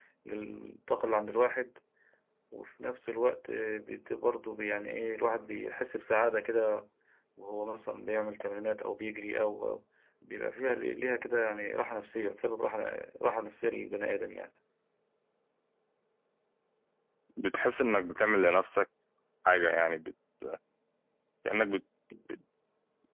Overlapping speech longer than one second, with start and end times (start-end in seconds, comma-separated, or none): none